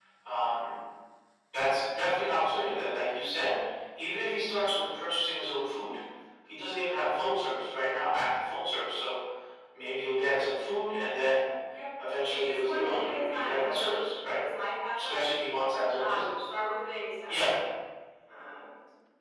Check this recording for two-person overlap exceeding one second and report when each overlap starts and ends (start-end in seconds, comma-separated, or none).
12.2-14.4